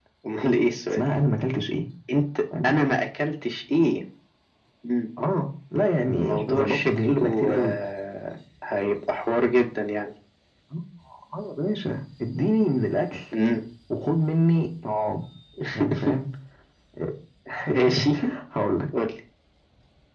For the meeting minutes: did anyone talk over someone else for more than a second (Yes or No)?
Yes